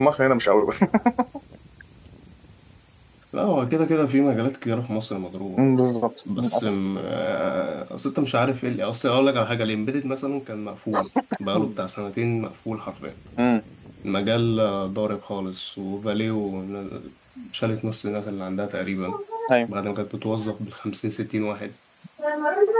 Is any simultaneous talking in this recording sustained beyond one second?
No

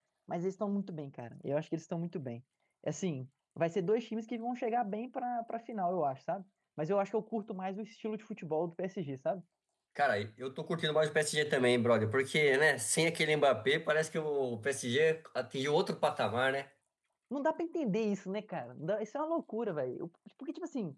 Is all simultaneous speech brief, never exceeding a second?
Yes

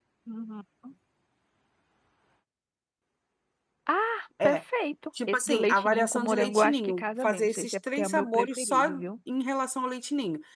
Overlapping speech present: Yes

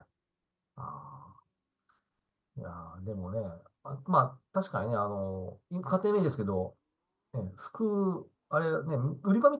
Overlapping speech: No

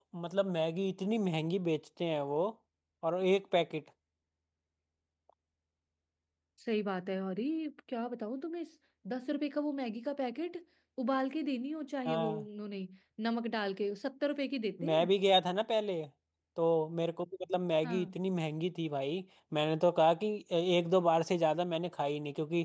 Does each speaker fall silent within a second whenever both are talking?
Yes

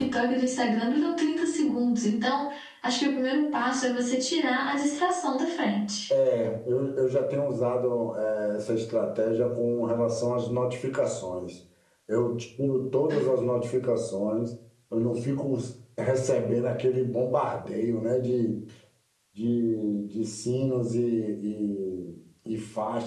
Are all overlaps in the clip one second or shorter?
Yes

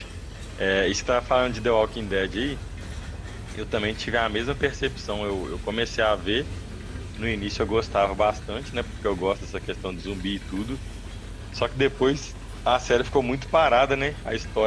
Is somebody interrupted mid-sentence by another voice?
No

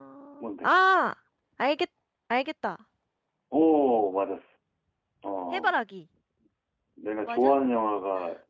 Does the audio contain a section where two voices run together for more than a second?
No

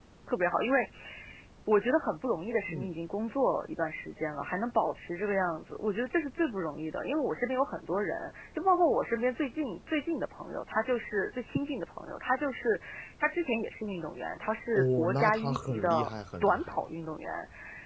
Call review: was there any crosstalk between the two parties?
Yes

